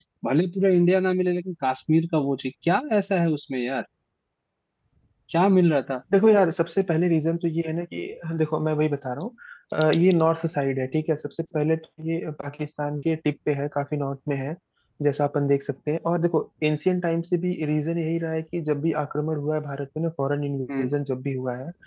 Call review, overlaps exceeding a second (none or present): none